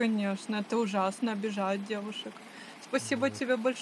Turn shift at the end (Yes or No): No